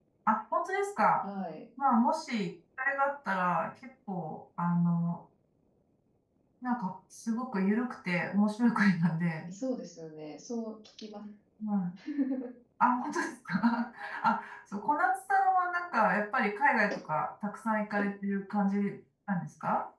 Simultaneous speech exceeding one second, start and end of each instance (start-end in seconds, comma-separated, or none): none